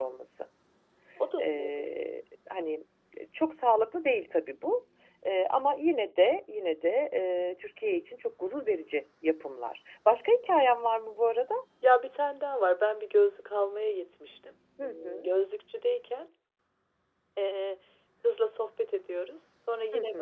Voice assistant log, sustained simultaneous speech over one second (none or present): none